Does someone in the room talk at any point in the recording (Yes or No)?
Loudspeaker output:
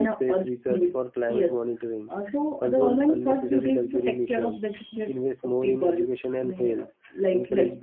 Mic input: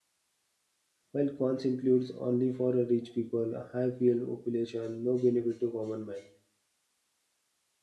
Yes